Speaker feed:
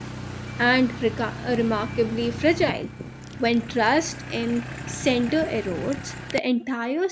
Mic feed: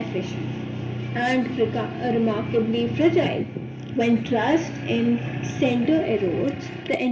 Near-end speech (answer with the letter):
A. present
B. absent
B